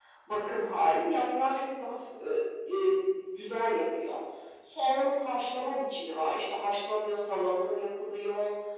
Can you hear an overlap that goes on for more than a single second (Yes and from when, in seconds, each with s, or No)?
No